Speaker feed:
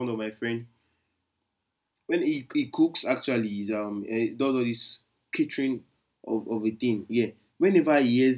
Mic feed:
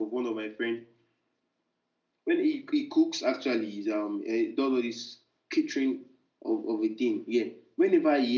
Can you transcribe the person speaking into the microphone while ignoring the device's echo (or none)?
none